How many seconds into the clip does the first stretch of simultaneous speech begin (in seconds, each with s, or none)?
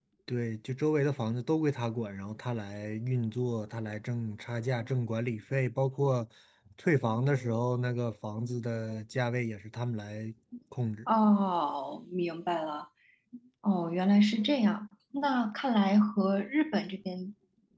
none